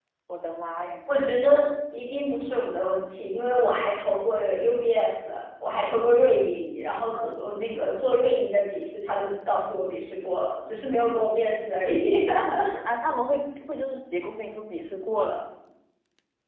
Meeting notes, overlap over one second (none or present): none